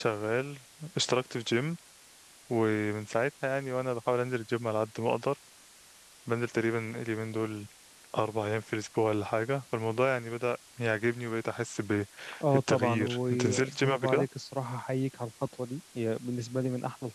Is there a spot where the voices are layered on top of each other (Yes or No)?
Yes